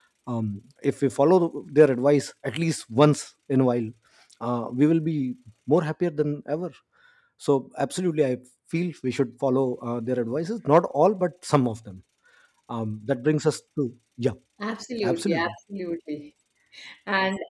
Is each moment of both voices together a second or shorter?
Yes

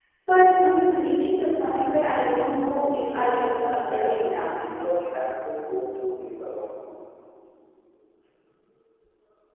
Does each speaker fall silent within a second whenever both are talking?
No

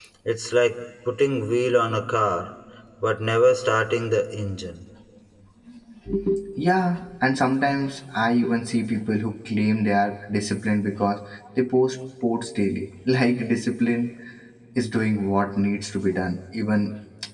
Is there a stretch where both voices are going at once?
No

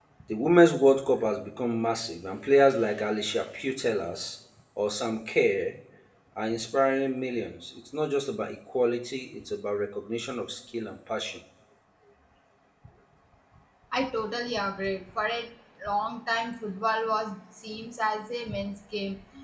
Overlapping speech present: No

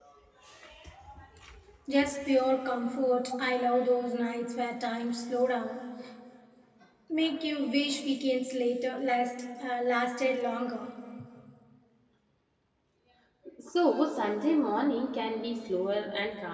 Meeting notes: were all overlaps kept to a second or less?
Yes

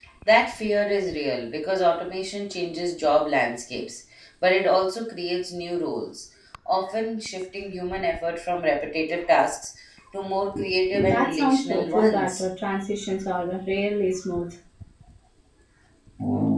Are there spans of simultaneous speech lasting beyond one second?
Yes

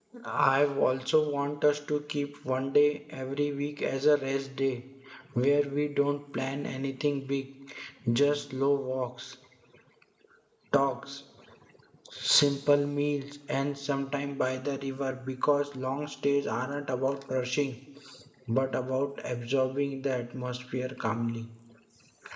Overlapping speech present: No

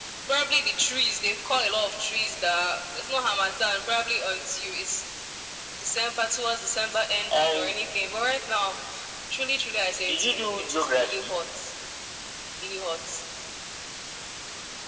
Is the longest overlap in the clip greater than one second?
Yes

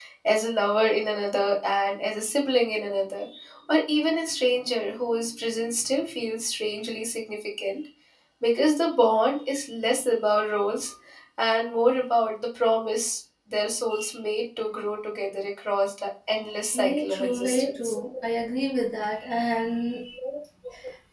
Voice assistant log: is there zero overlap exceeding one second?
No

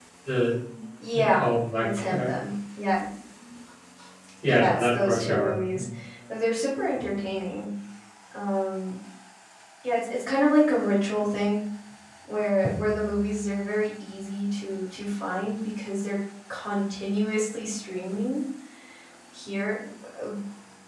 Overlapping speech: Yes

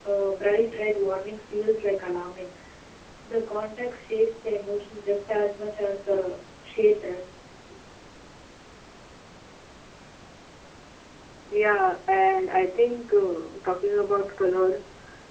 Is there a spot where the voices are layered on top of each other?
No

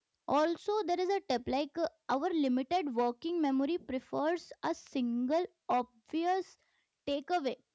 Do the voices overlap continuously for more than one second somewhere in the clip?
No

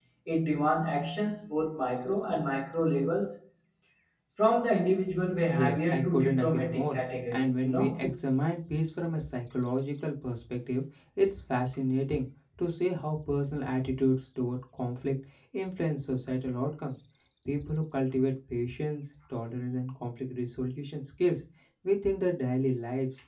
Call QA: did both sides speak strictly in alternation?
No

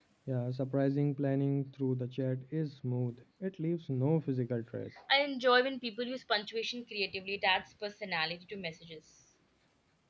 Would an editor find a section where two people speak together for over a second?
No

